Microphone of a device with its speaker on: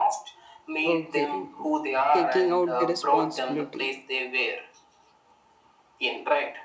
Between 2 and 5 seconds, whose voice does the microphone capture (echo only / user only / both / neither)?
both